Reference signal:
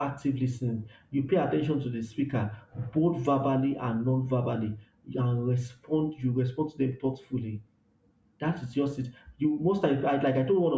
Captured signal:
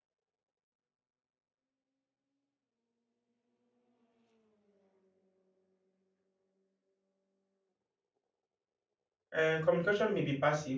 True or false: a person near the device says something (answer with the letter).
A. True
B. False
A